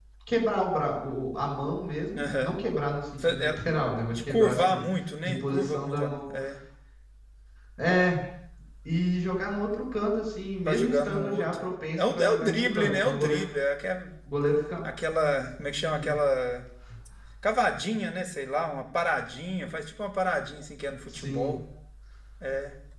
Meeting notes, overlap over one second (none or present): present